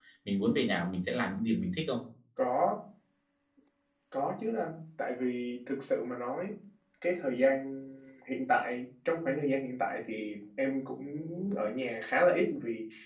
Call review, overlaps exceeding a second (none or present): none